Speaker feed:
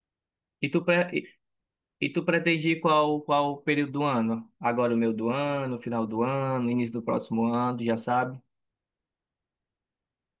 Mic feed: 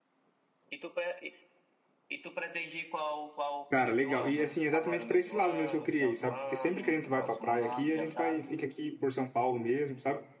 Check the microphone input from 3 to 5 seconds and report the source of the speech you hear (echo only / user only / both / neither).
both